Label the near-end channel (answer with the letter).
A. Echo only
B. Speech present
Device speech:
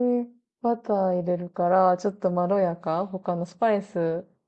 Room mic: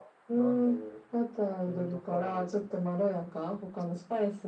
B